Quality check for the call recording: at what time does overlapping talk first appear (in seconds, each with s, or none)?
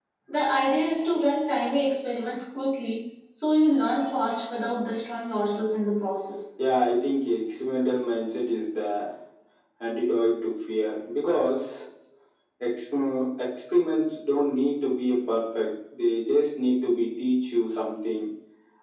none